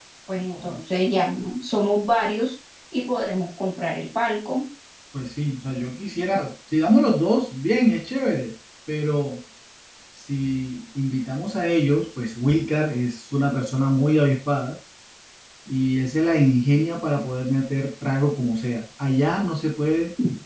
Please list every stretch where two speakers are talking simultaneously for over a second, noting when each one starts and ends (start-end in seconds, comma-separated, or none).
none